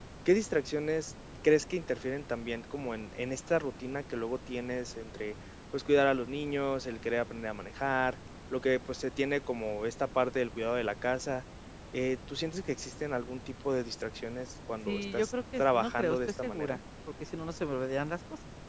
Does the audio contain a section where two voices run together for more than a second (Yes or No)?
Yes